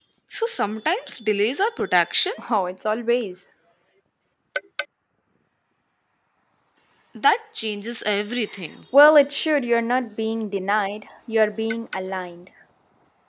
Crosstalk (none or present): none